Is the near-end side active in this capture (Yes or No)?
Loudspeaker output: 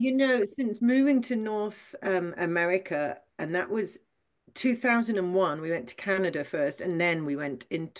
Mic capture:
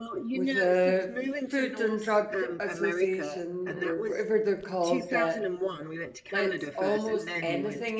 Yes